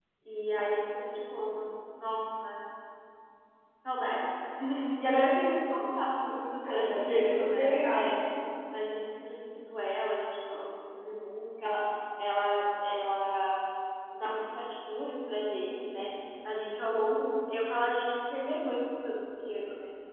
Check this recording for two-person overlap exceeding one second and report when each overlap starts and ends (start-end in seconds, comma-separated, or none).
6.7-8.1